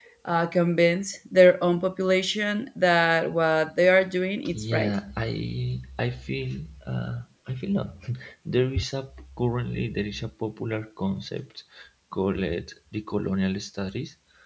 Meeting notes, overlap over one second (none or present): none